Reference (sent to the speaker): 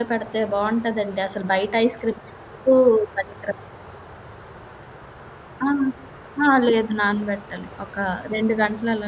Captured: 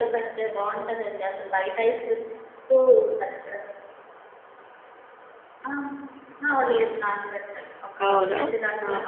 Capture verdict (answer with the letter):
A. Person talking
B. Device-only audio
A